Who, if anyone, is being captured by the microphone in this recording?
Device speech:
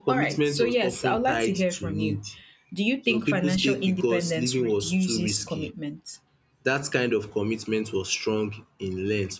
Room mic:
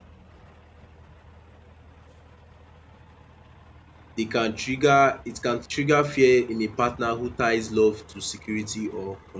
user only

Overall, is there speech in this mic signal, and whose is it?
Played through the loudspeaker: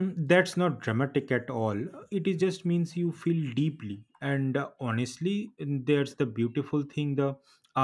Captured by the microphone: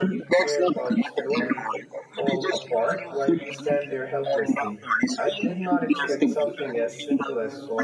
both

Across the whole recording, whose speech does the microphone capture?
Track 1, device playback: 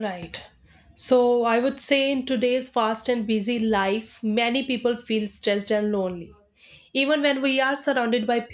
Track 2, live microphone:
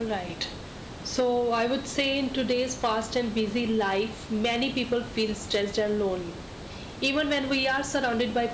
echo only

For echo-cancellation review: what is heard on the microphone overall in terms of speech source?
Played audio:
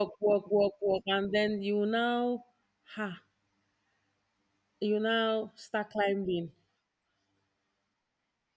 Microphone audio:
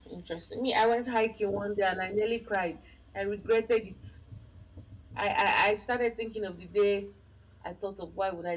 user only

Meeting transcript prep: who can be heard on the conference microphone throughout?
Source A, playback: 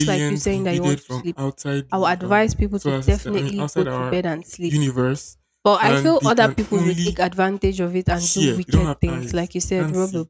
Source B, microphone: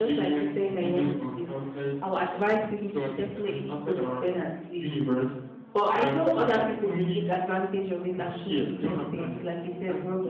echo only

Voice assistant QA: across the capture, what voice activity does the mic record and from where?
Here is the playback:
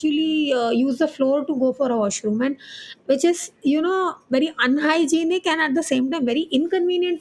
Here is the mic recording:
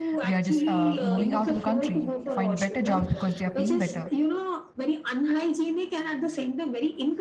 both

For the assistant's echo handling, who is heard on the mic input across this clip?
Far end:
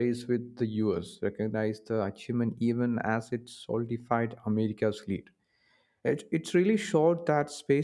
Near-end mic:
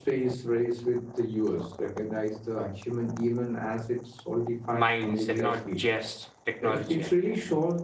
both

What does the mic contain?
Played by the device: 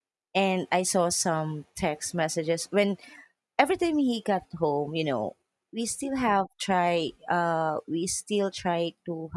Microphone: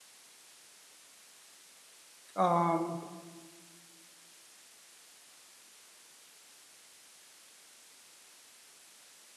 user only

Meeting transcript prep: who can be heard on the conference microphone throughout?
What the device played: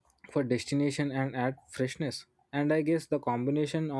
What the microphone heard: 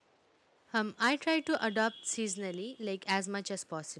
user only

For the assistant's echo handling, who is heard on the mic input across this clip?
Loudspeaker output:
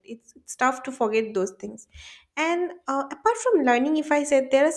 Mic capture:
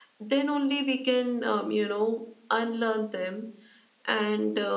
user only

